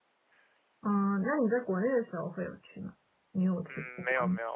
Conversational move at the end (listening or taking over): taking over